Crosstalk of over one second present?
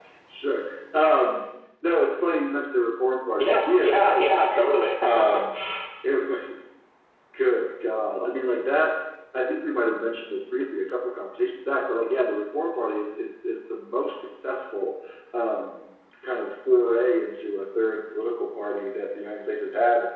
Yes, from 3.4 s

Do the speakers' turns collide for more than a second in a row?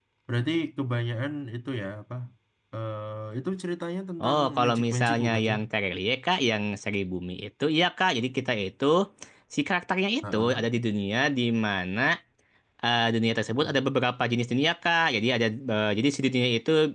Yes, from 4.2 s

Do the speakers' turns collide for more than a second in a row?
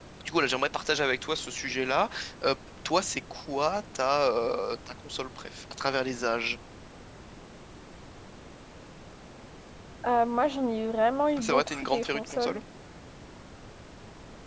Yes, from 11.4 s

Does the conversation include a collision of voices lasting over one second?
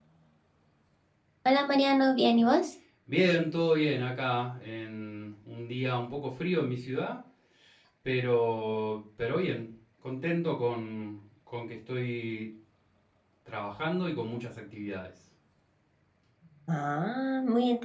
No

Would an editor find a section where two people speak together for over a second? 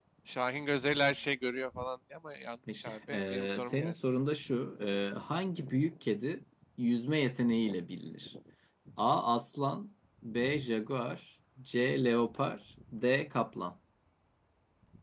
Yes, from 2.7 s

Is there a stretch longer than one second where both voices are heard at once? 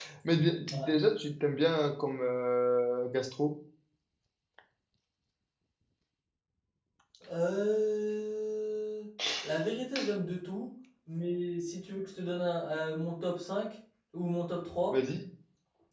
No

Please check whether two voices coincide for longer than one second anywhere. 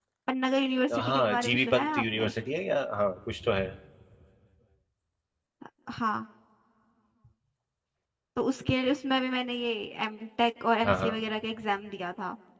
Yes, from 1.0 s

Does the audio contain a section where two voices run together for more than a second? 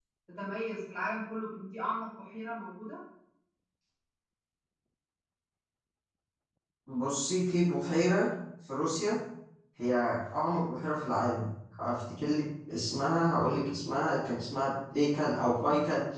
No

